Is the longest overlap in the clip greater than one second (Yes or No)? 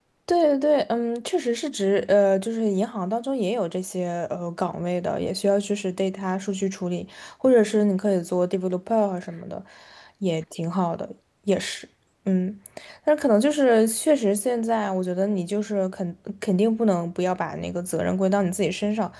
No